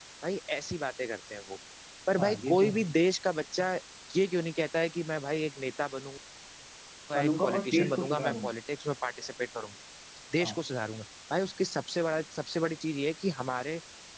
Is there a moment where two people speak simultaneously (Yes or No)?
Yes